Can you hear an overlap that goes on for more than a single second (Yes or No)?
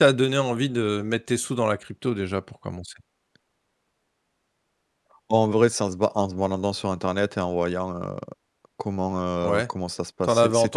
No